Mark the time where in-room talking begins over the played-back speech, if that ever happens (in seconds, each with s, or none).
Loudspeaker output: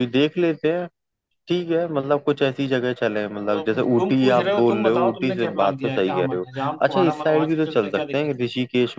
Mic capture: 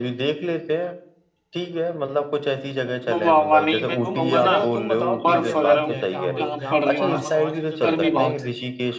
2.8 s